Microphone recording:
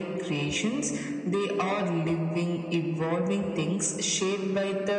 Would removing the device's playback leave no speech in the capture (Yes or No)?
Yes